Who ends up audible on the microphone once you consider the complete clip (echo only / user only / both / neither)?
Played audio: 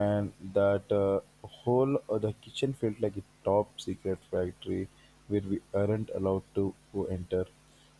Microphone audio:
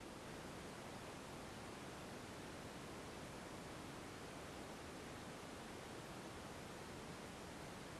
neither